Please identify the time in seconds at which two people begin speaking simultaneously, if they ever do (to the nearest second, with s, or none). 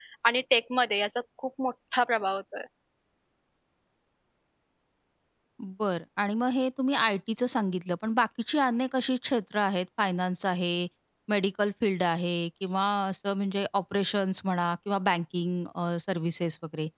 none